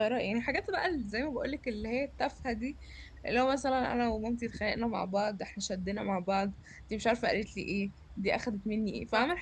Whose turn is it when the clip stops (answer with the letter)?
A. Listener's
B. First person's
B